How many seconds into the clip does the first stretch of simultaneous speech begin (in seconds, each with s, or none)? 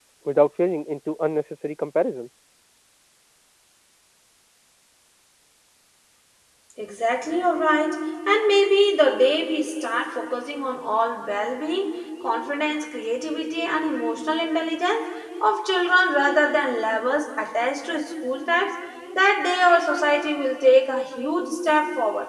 none